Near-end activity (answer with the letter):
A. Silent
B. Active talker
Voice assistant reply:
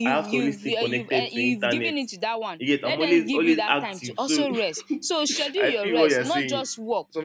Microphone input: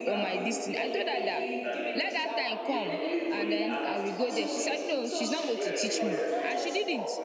B